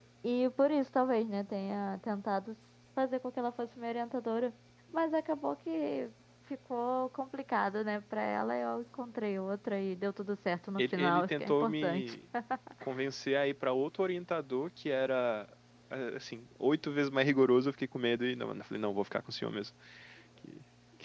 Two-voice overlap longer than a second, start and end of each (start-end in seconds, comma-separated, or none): 10.8-12.2